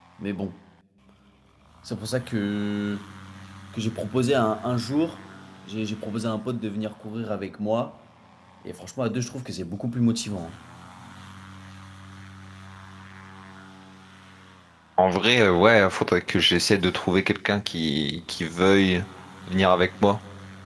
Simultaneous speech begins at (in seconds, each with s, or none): none